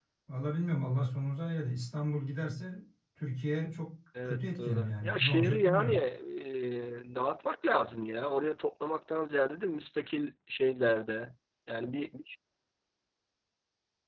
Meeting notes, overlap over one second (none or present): present